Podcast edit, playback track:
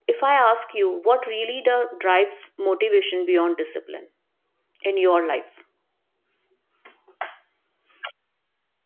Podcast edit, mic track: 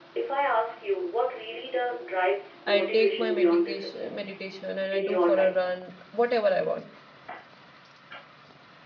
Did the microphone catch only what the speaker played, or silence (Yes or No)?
No